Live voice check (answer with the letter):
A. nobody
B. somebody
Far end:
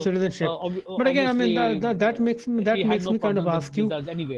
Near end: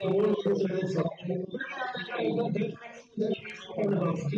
A